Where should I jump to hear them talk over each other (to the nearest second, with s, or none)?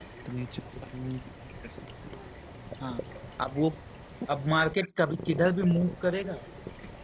none